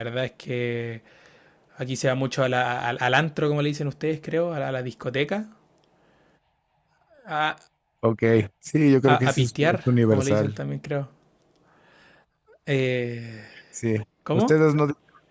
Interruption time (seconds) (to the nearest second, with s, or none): 9 s